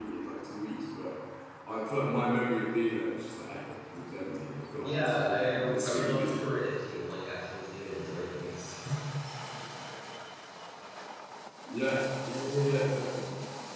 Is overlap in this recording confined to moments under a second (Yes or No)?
No